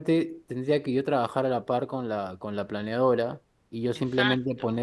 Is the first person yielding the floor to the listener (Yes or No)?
No